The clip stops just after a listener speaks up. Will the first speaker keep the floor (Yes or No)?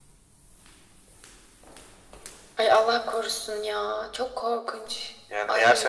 No